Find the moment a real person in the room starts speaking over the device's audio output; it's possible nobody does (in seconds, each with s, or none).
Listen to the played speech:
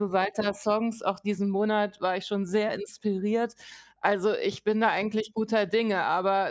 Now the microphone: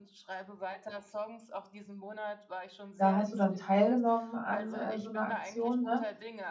3.0 s